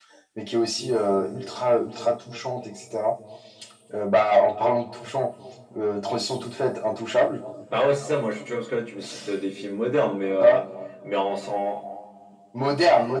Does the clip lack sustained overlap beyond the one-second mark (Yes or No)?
Yes